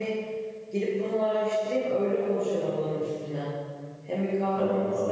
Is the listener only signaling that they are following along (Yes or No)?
Yes